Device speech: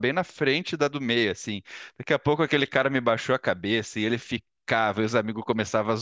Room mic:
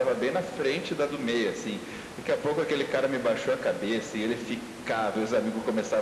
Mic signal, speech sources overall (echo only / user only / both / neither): echo only